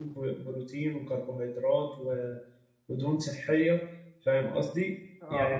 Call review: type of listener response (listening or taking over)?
taking over